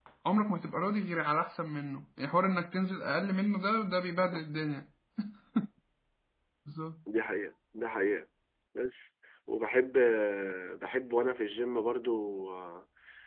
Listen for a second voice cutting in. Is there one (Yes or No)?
No